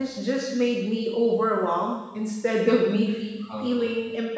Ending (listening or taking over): listening